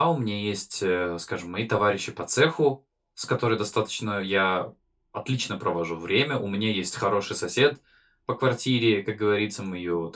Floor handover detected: No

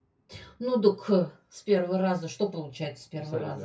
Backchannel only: No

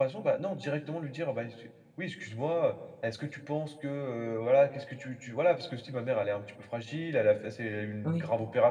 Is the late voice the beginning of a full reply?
No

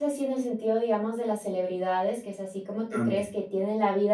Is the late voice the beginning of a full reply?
No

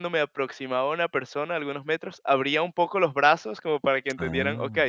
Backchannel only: Yes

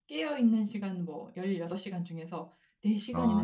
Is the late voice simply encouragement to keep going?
Yes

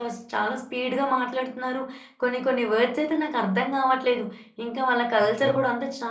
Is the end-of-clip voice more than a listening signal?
No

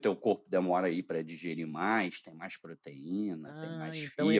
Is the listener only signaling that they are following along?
No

